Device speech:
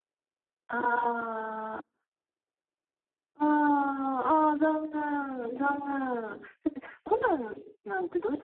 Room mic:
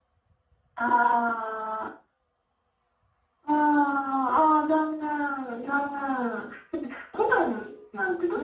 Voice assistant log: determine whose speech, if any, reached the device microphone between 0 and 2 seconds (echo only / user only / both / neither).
echo only